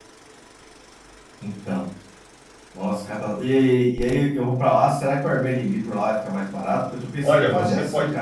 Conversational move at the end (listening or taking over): taking over